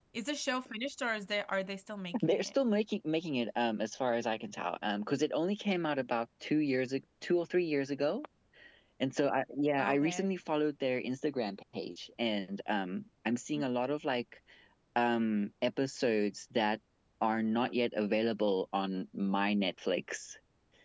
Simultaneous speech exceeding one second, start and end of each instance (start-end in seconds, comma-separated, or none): none